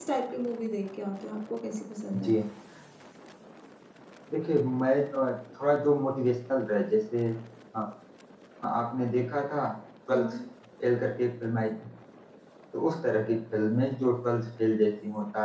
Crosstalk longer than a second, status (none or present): none